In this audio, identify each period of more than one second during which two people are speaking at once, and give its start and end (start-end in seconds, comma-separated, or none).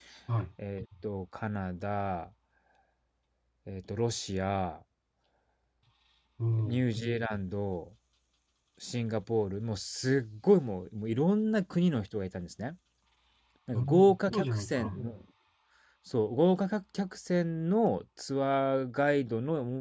13.7-15.0